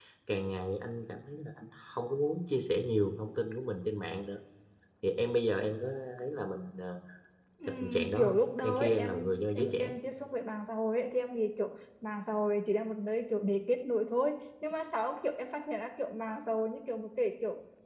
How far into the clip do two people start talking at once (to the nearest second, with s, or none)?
8 s